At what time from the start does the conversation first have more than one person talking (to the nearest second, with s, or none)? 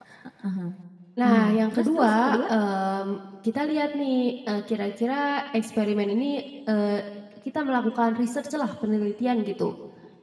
1 s